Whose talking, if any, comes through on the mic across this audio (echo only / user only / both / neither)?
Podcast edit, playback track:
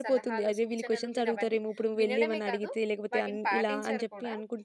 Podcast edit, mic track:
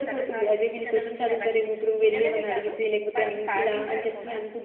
echo only